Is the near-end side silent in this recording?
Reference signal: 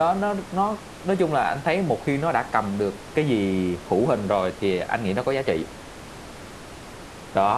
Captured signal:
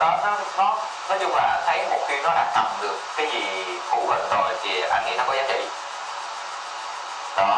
Yes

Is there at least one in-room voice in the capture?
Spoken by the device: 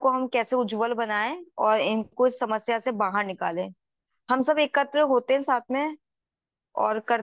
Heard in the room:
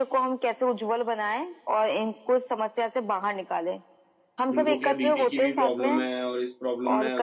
Yes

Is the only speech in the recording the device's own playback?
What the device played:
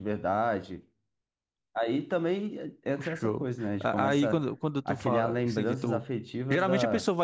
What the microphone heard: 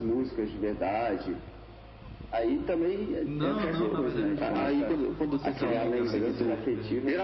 No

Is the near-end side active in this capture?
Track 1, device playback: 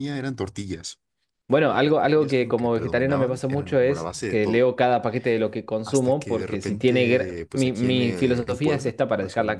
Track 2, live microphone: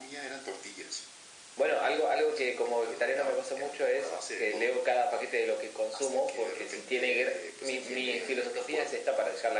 No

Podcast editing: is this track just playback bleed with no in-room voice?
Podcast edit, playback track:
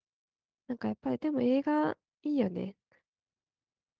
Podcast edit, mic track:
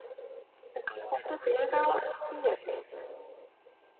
Yes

